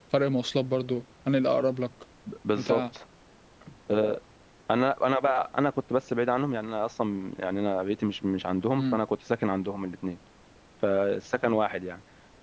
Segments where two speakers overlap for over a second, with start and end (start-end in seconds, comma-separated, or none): none